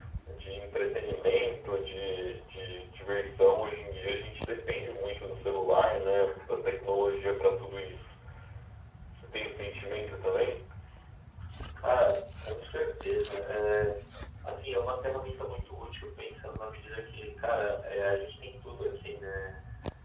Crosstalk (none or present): none